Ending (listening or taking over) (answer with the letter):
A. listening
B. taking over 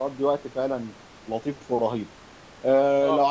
A